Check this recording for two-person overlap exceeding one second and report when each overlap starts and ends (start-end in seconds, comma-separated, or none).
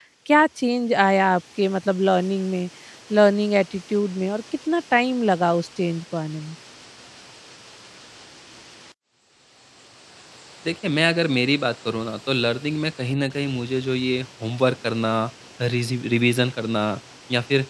none